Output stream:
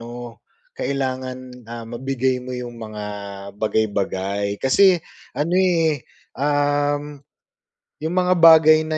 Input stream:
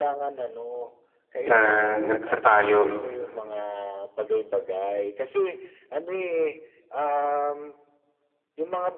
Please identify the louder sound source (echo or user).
user